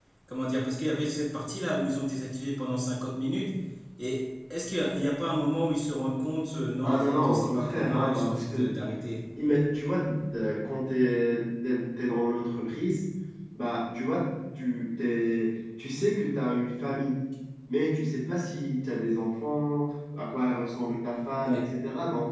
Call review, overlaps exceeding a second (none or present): present